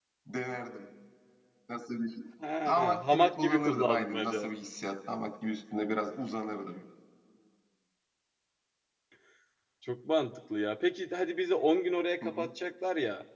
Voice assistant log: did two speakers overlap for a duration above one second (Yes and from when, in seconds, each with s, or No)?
Yes, from 2.7 s